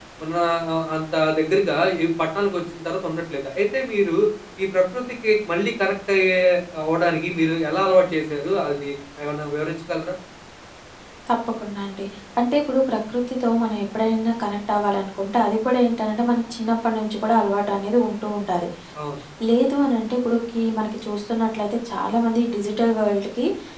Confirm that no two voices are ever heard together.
Yes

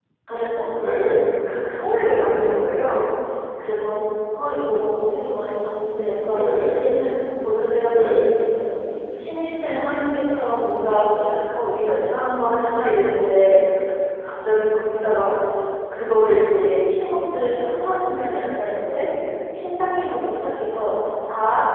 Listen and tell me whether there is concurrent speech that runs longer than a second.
No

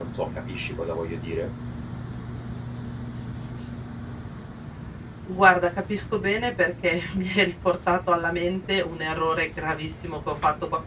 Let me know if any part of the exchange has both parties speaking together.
No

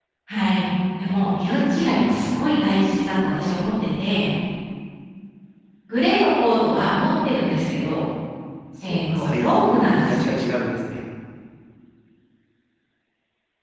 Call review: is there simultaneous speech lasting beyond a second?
Yes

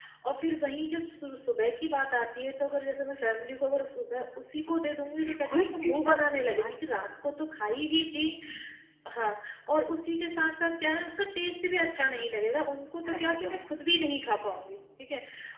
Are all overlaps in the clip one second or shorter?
No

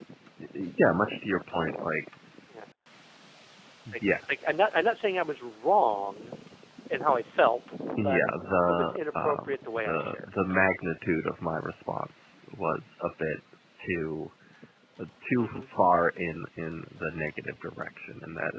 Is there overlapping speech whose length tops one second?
Yes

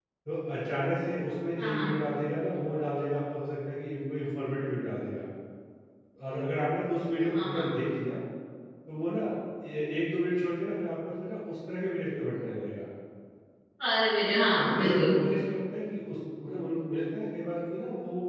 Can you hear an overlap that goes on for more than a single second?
No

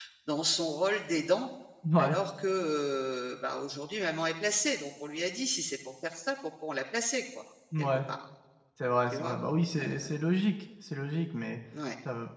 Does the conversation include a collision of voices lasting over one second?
No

